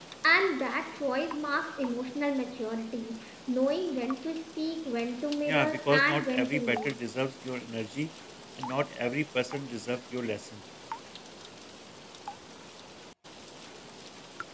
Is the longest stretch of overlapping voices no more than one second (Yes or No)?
No